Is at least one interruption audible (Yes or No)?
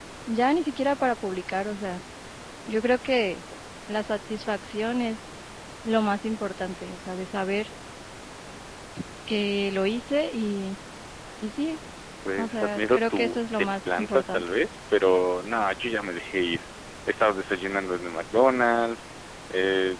Yes